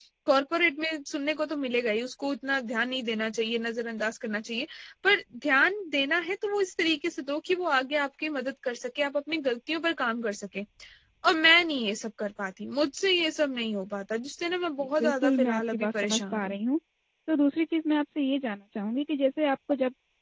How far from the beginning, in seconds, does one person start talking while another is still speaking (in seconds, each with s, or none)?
15.0 s